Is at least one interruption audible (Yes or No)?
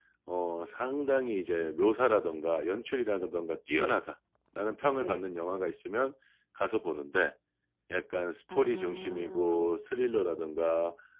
Yes